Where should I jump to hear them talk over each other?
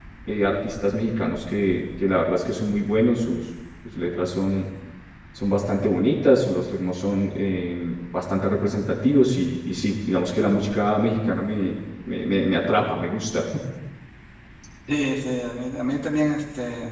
none

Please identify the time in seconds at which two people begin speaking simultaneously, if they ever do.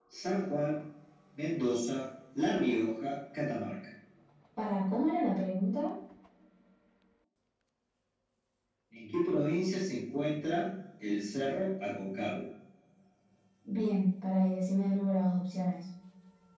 none

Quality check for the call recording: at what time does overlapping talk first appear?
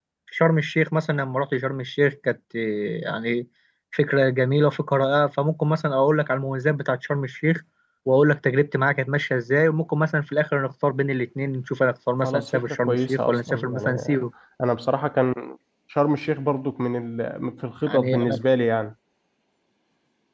12 s

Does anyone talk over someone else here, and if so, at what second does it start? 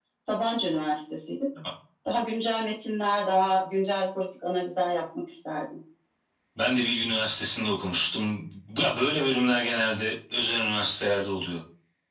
none

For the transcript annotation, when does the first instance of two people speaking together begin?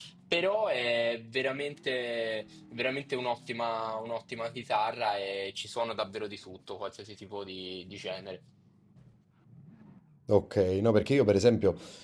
none

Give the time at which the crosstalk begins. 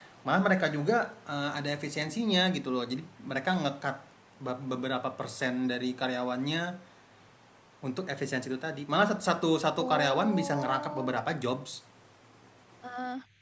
10 s

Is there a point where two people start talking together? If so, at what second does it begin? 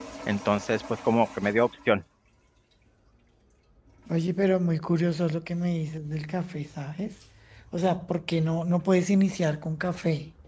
none

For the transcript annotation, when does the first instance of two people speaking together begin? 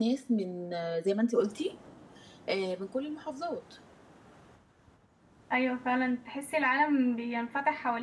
none

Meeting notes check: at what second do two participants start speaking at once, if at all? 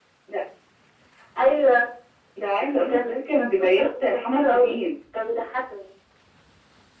3 s

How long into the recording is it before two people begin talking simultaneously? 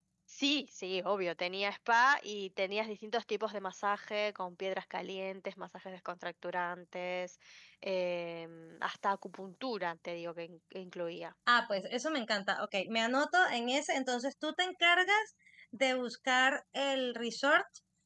none

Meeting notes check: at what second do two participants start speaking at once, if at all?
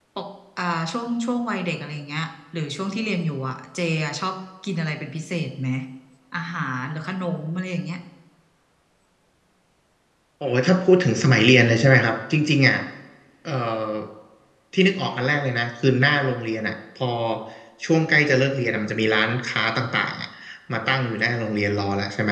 none

